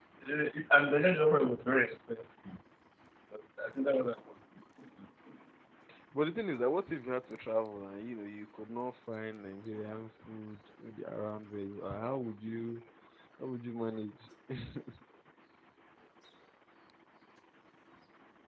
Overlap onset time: none

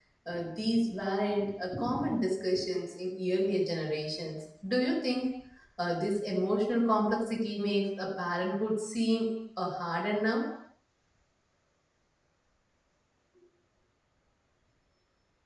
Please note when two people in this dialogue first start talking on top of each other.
none

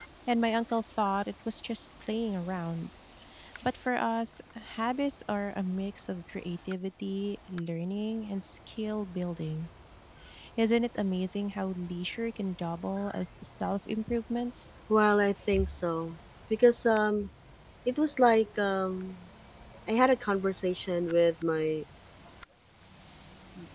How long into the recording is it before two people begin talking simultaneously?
none

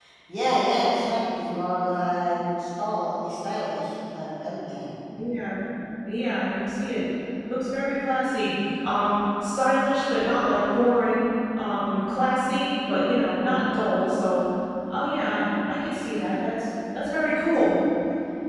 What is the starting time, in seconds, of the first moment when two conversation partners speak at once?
none

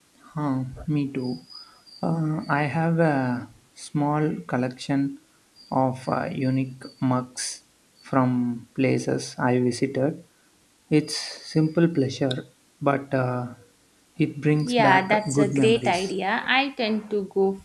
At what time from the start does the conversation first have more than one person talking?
15 s

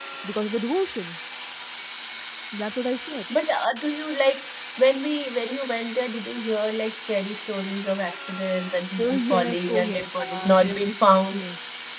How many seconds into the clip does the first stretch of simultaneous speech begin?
9 s

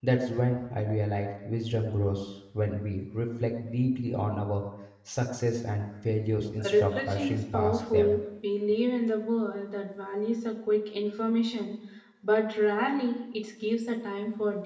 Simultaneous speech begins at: 7 s

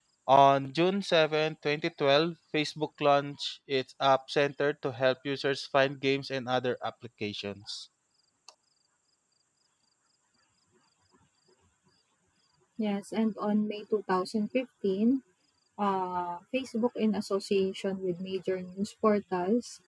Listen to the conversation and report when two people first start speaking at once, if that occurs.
none

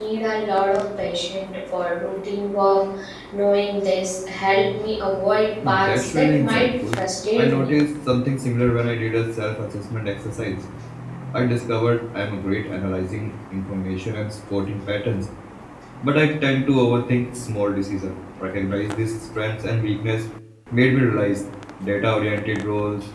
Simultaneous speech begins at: 6 s

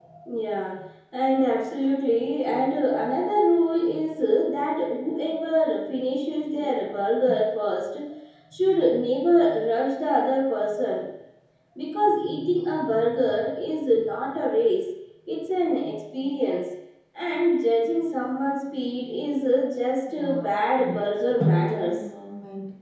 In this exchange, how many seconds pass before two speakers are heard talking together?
20 s

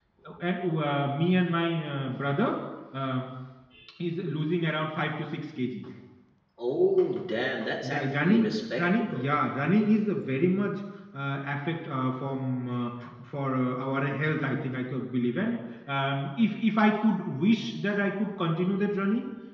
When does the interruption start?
8 s

